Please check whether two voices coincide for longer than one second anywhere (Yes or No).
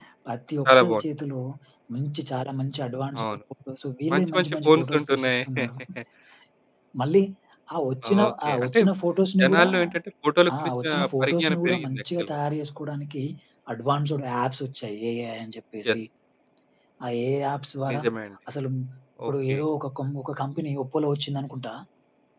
Yes